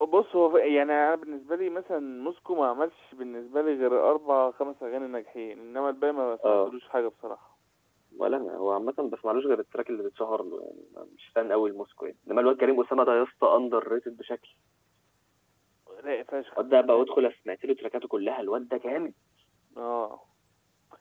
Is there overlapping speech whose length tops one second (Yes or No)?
No